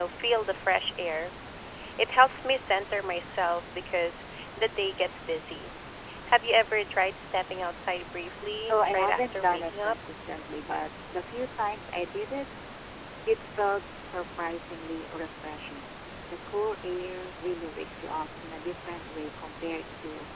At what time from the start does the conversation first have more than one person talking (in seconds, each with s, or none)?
8.7 s